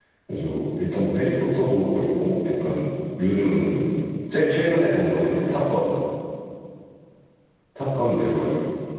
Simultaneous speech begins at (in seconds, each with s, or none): none